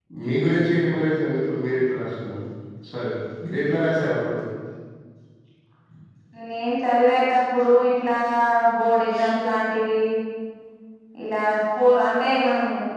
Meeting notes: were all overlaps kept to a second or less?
Yes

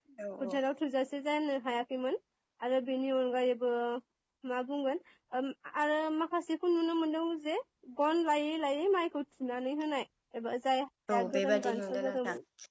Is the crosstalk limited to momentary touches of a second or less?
No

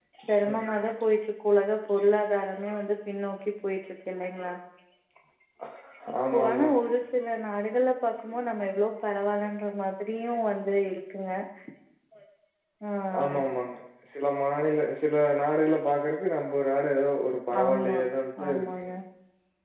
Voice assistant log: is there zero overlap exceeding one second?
Yes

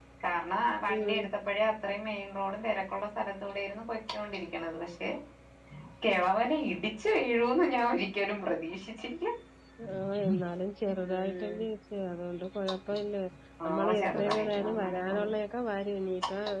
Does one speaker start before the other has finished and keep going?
Yes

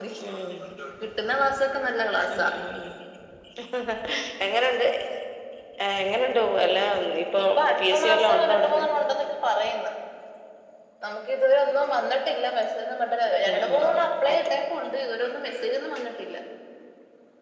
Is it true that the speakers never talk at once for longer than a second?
No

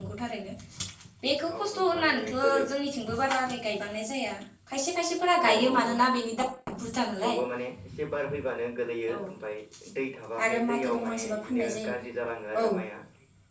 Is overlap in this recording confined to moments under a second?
No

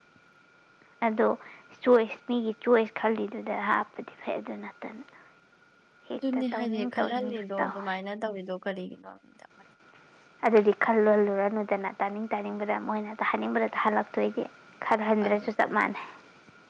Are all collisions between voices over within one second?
No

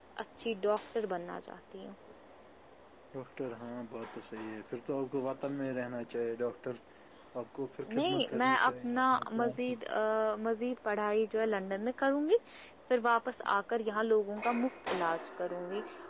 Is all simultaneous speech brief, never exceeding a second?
No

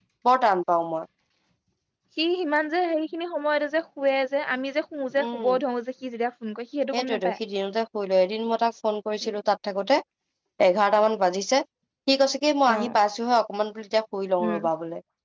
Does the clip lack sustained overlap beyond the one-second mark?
Yes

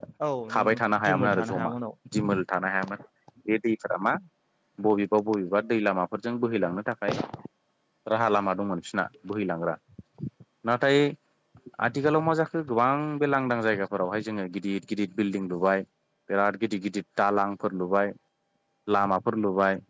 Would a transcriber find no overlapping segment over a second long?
No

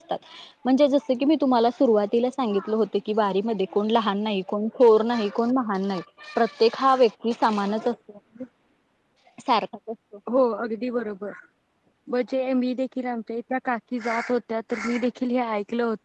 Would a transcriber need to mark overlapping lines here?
No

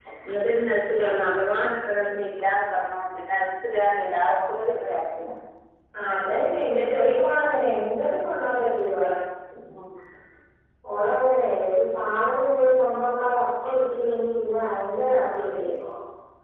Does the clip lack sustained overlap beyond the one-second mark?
Yes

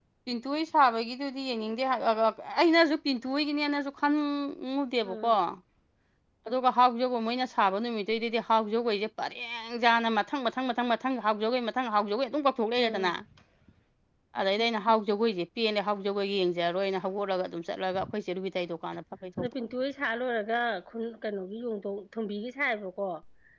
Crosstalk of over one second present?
No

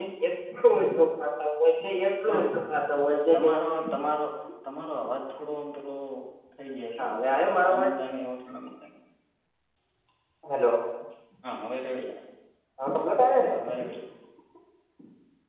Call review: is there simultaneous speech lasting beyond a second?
No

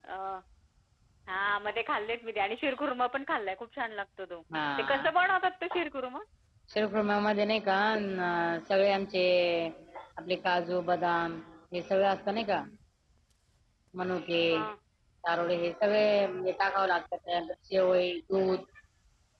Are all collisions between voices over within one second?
Yes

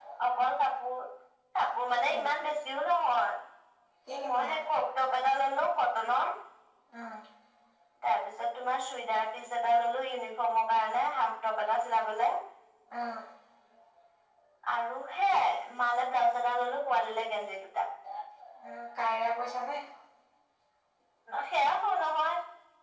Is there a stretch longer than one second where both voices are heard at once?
No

